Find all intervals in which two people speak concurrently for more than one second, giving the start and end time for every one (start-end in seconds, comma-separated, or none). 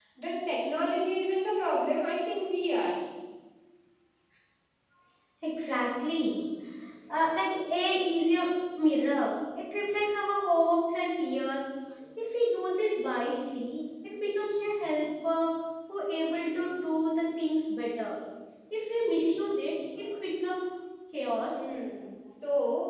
none